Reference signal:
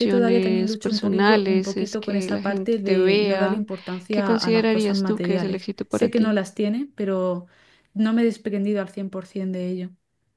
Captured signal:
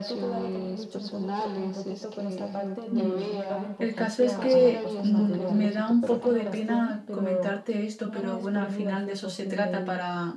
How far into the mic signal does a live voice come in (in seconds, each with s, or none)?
2.9 s